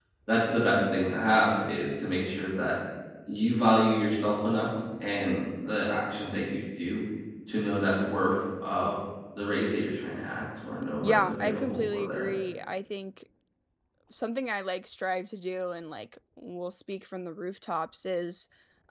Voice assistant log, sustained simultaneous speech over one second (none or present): present